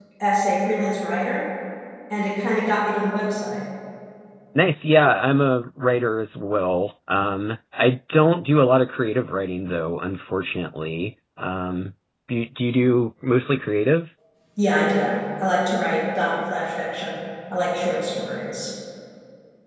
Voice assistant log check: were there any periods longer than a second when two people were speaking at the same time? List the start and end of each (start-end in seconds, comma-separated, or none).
none